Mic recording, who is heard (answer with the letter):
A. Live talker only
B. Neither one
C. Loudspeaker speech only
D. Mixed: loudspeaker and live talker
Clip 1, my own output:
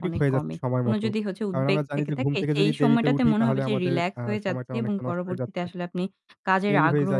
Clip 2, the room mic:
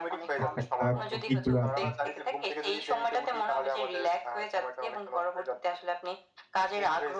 D